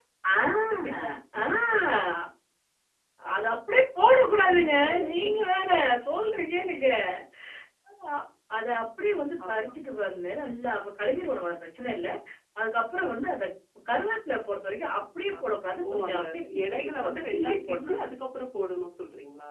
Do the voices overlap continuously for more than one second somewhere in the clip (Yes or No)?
Yes